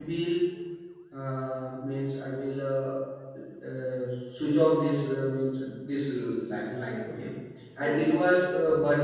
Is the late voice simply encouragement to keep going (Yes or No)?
Yes